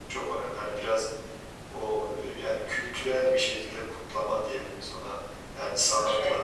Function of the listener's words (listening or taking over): listening